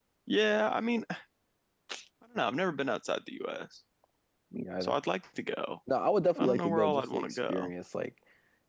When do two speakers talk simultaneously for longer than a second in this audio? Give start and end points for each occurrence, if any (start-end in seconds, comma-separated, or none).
6.4-7.7